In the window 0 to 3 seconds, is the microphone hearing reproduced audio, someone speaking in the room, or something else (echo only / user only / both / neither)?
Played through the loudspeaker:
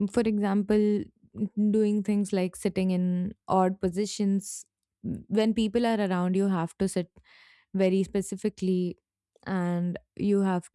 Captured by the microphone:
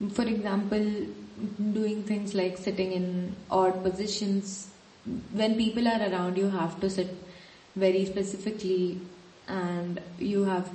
echo only